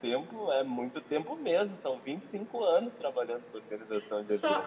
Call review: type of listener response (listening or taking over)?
taking over